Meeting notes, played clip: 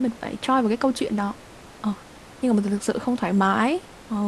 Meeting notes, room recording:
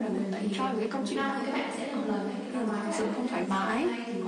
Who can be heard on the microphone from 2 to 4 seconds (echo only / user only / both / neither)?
both